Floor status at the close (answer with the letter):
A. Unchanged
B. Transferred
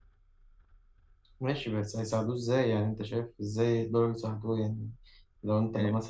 A